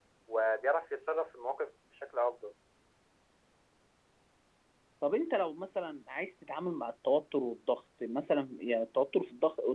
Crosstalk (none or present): none